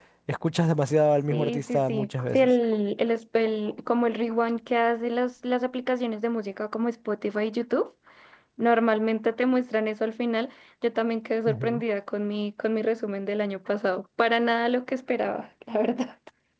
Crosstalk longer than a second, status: present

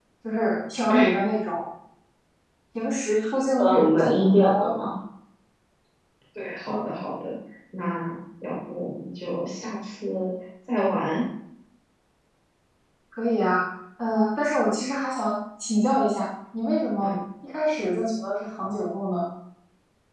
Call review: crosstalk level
present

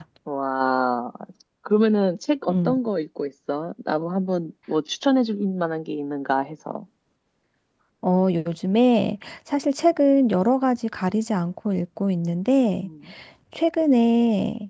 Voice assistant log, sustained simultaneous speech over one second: none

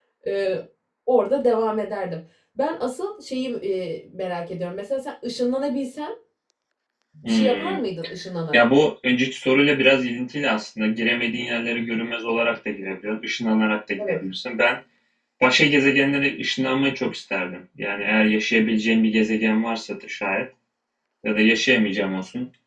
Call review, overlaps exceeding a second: none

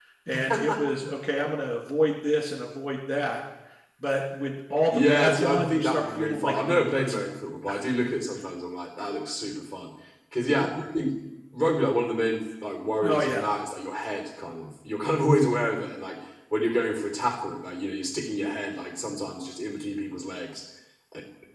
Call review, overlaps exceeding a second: present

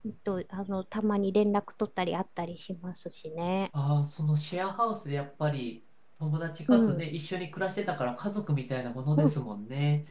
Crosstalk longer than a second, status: none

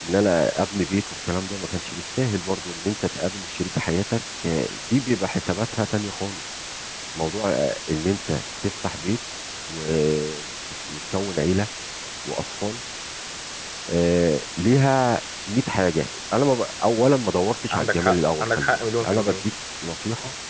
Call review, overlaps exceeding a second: present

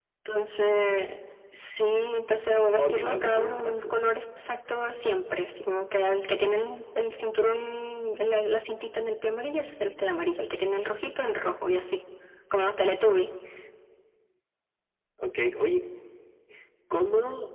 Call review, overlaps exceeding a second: present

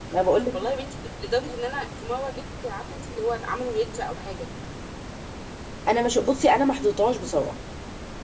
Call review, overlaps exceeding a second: none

